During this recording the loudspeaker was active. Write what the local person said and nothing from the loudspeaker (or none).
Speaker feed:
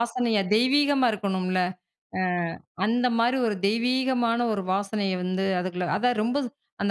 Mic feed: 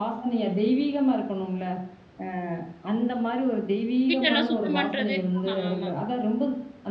வீட்டெல்லாம் சுத்தம் பண்றது, ஆமா ஆமா.